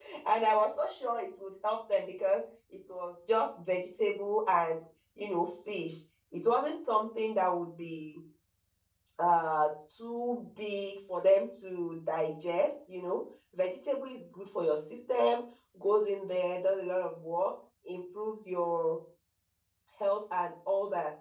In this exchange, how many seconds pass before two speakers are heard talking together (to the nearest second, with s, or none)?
none